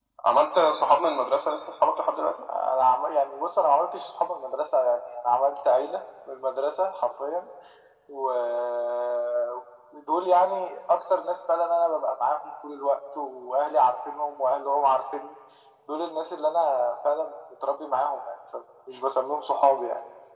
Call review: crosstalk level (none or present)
none